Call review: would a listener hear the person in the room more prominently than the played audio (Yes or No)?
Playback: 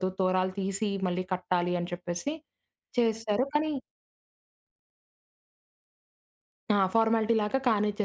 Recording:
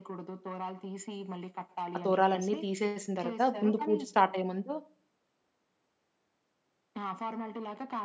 Yes